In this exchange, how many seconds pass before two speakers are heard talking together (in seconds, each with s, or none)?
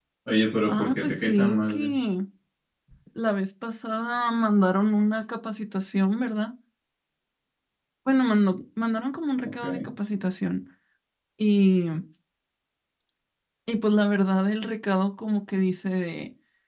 0.7 s